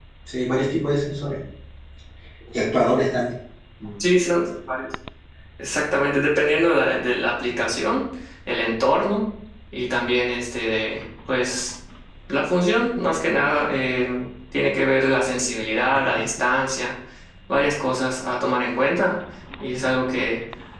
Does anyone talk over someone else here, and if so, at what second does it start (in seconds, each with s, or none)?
none